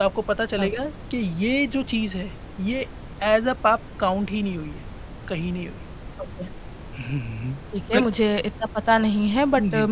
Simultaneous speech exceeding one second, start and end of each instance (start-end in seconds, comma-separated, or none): none